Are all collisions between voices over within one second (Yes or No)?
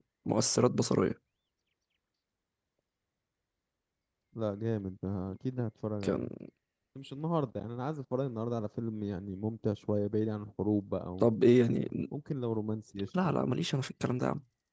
Yes